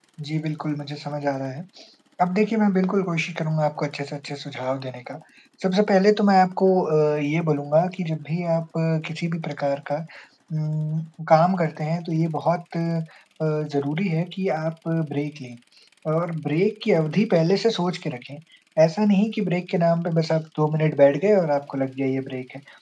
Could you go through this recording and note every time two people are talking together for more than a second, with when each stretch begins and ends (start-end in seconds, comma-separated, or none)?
none